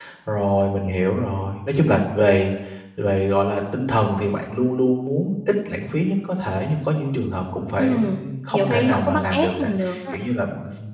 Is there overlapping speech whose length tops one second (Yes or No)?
Yes